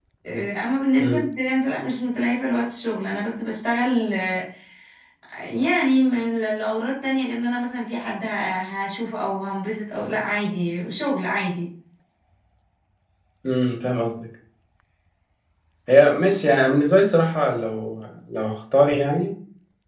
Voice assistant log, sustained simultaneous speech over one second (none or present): none